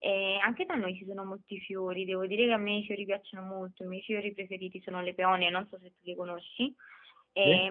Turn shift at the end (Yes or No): No